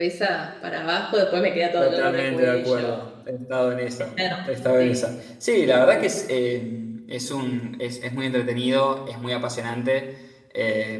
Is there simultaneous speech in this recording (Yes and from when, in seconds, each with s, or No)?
Yes, from 1.8 s